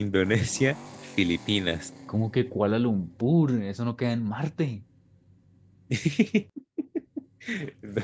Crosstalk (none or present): none